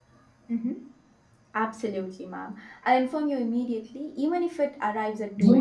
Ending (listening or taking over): taking over